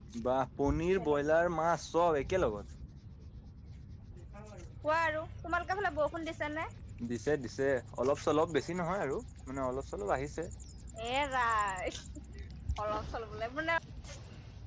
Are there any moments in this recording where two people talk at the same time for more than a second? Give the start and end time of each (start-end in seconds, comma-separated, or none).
none